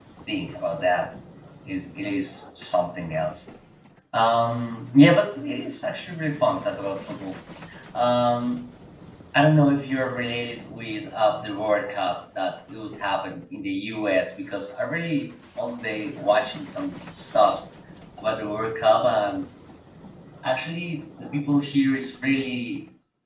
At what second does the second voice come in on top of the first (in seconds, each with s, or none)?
none